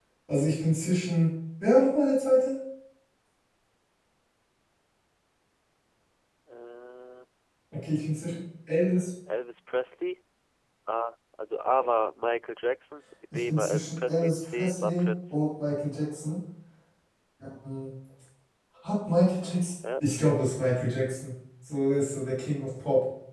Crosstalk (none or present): present